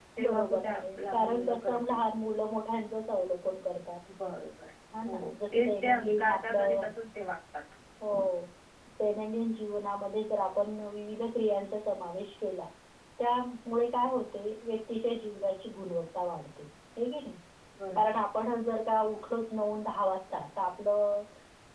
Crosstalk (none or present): present